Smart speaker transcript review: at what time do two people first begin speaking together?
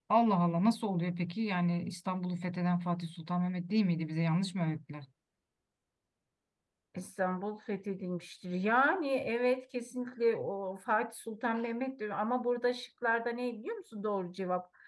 none

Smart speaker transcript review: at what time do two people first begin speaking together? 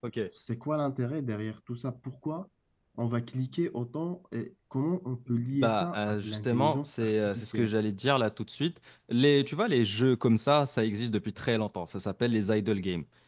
5.5 s

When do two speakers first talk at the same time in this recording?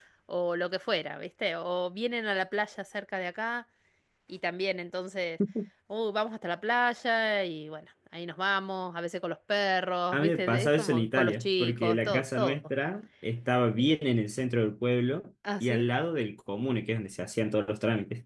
10.1 s

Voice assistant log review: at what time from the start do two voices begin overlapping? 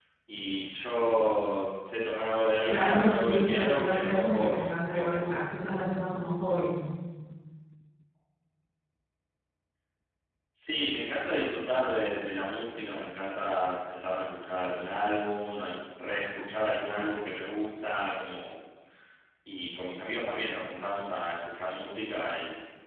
2.7 s

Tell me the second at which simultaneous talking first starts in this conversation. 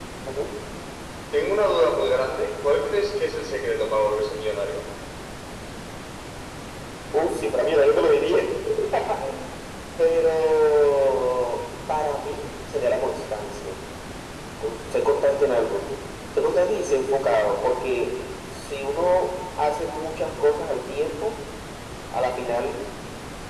none

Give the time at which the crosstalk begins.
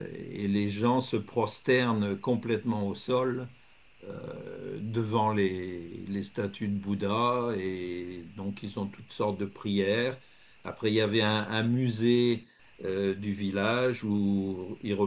none

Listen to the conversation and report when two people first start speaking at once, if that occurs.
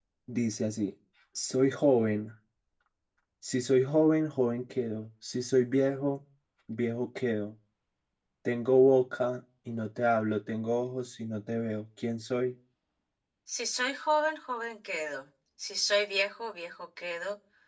none

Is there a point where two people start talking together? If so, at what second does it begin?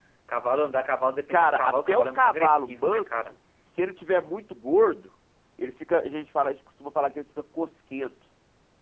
1.3 s

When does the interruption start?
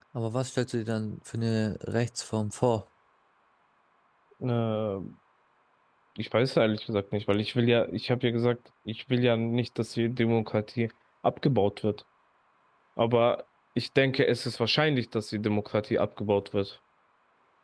none

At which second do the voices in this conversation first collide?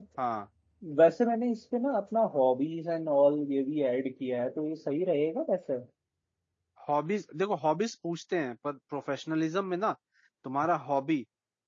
none

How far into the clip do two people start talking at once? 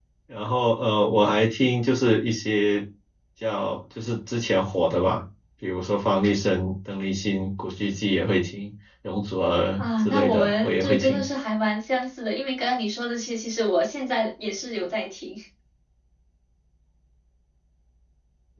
9.8 s

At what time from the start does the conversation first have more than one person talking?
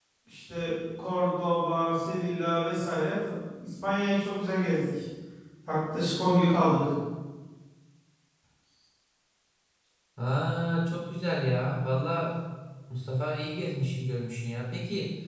none

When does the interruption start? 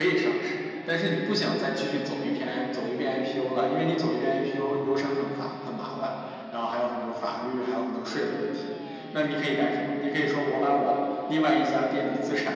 none

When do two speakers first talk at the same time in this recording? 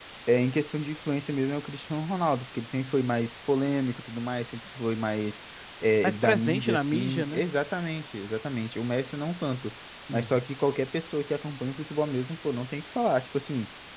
6.0 s

